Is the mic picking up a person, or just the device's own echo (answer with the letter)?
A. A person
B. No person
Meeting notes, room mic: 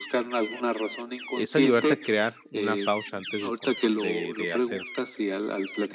A